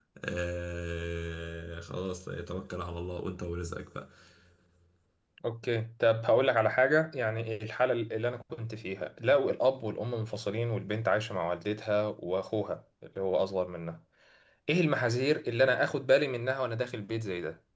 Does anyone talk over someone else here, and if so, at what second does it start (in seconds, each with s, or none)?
none